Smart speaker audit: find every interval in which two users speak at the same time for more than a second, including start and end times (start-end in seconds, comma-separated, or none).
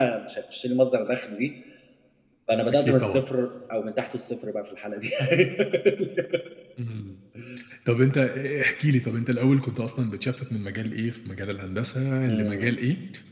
none